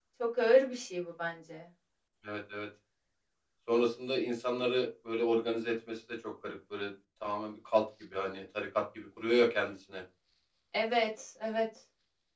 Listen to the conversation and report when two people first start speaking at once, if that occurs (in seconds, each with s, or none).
none